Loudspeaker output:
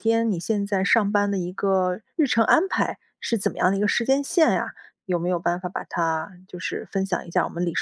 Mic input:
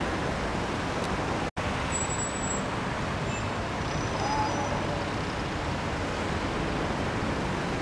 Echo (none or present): none